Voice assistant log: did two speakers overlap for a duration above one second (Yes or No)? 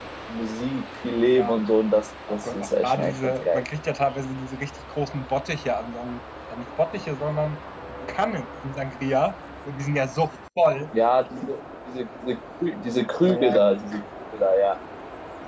Yes